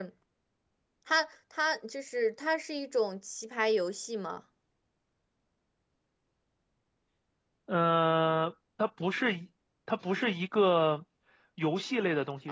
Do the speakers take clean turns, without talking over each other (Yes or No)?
Yes